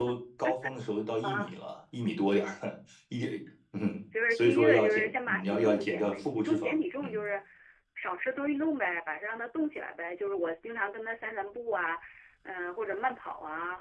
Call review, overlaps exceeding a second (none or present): present